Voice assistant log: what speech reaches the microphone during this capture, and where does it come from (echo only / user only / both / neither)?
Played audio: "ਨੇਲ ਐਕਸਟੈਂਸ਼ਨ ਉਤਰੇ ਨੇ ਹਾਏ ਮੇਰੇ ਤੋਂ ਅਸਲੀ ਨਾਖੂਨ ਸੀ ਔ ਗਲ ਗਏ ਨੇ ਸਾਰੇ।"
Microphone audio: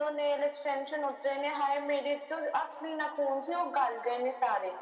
echo only